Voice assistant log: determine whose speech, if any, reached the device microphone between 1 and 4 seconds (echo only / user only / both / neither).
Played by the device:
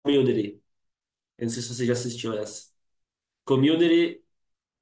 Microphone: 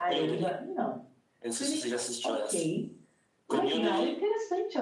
both